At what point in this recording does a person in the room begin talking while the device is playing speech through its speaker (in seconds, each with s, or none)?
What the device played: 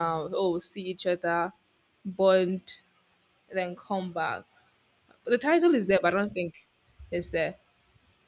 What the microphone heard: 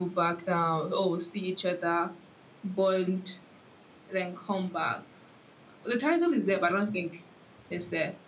none